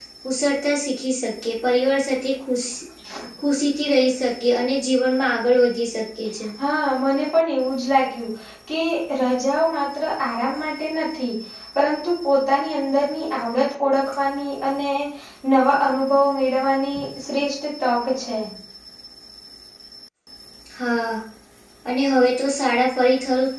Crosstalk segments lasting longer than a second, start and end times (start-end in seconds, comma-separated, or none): none